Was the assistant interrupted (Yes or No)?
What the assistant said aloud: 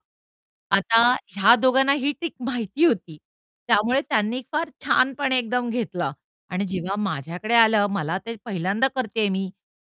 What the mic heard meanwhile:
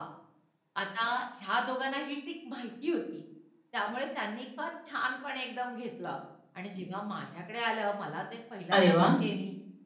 Yes